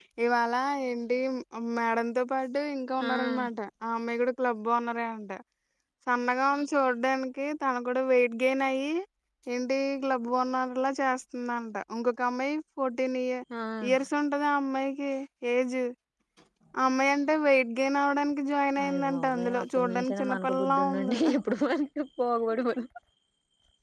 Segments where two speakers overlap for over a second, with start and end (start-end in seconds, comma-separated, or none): 18.9-21.2